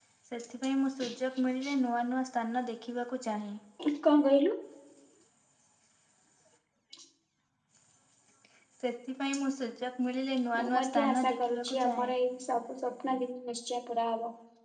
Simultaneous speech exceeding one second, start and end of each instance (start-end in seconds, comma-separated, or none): 10.6-12.1